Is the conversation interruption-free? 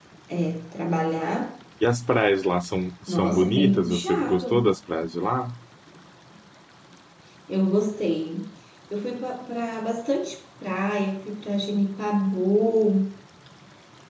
No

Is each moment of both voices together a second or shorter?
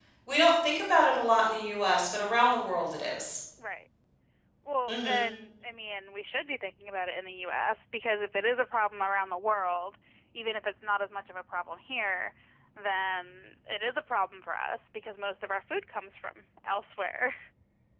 Yes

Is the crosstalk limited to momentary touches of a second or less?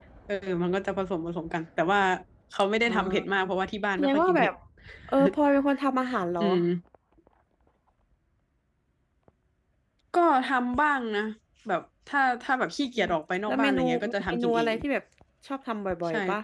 No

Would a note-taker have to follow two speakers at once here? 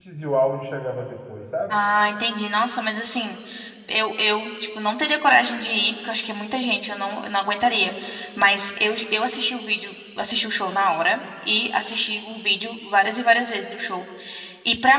No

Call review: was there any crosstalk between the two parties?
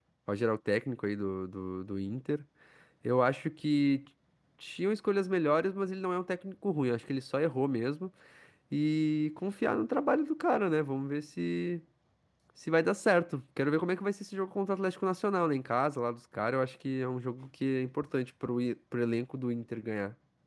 No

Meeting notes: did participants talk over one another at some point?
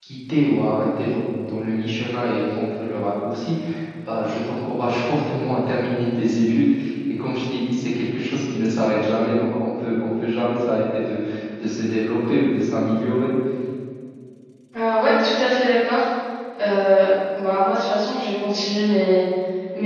No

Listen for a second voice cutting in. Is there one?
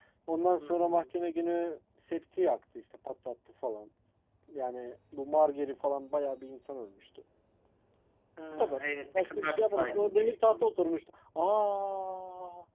Yes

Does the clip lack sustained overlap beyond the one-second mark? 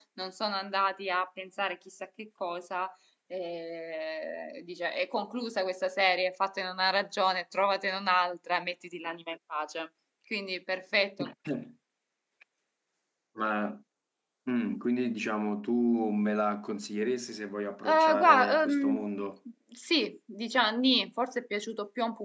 No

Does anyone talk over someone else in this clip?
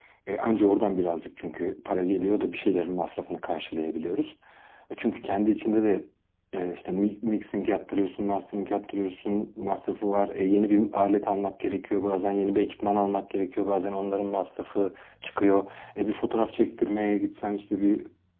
No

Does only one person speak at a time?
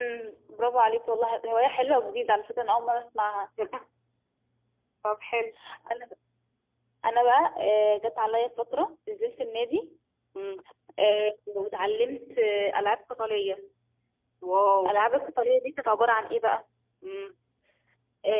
Yes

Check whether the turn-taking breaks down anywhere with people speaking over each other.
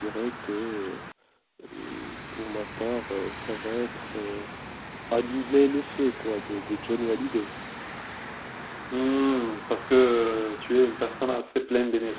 No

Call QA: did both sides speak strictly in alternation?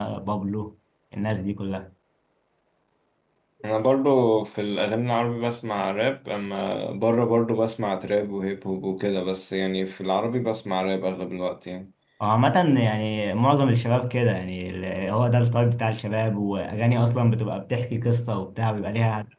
Yes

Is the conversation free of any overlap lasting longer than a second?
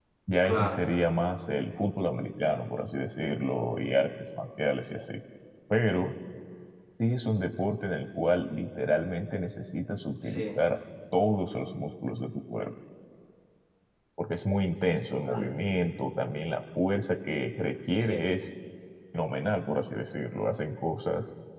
Yes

